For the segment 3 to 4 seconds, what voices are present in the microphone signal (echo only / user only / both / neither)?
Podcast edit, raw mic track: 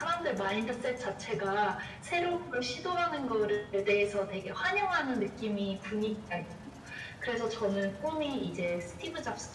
echo only